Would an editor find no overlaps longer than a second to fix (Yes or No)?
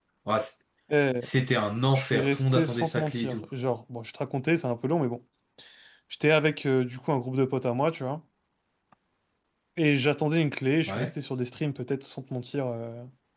No